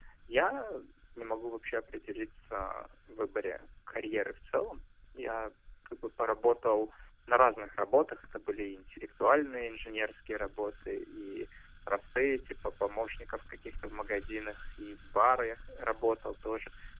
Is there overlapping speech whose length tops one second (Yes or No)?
No